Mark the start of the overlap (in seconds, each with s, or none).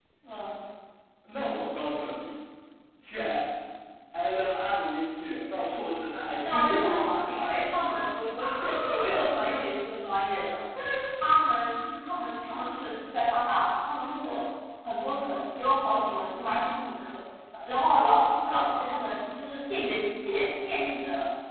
6.4 s